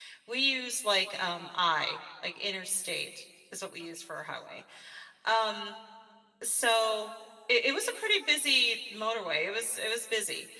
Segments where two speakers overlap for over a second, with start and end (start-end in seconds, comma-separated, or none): none